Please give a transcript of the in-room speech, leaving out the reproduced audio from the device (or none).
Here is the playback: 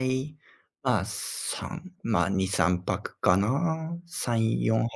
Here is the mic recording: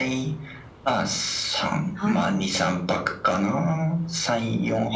はい、